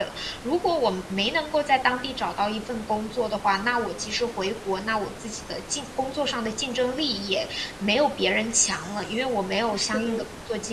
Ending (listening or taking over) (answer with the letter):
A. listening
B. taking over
A